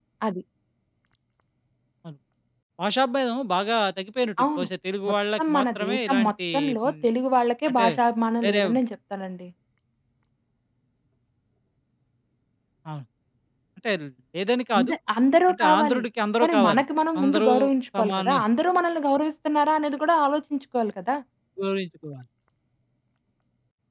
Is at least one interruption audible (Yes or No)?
Yes